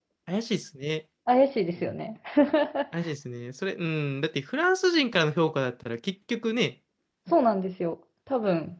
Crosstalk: none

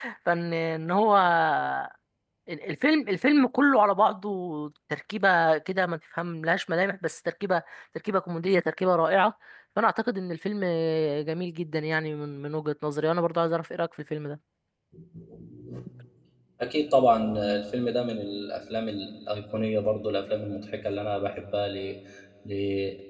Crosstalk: none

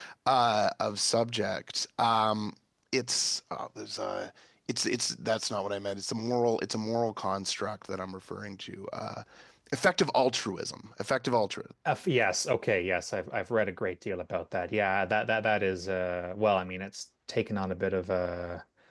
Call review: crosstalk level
none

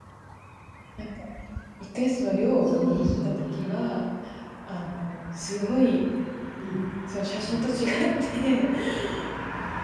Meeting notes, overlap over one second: present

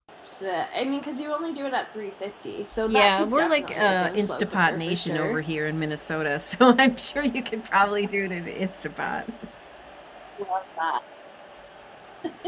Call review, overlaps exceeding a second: present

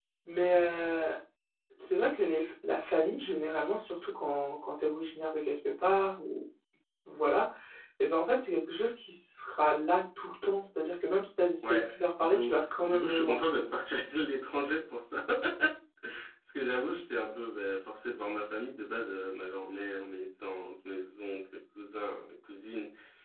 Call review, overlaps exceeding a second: present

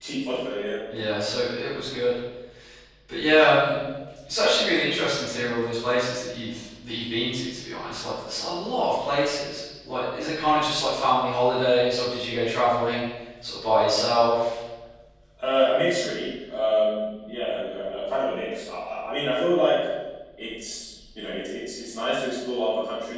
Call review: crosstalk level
none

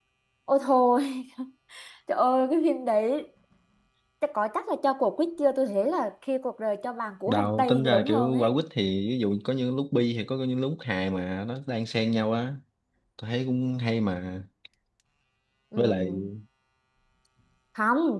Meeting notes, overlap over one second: present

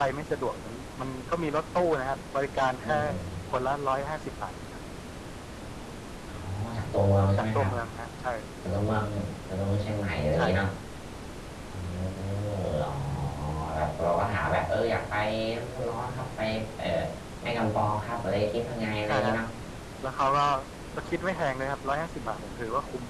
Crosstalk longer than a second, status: none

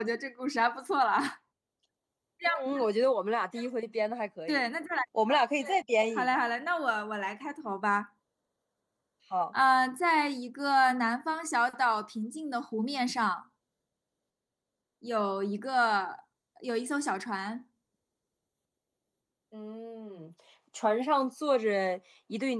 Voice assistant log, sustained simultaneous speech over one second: none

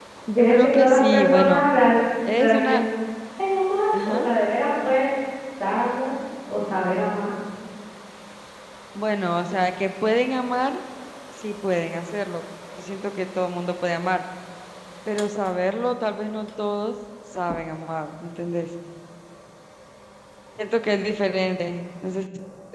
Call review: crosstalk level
present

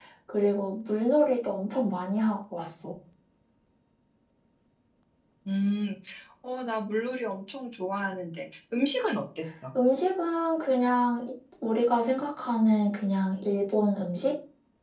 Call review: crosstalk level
none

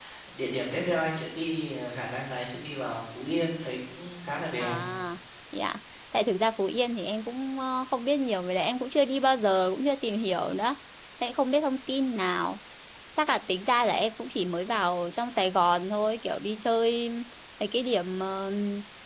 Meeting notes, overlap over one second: none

